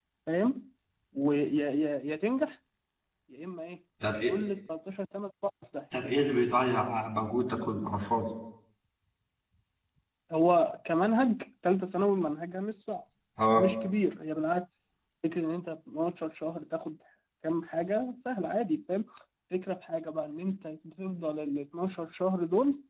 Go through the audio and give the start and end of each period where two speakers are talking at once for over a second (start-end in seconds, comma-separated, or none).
none